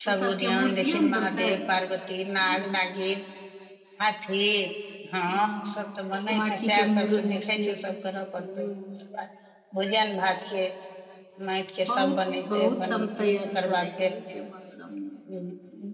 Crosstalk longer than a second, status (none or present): present